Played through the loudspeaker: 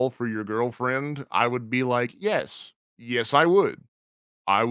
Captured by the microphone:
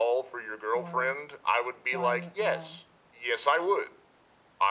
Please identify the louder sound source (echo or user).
echo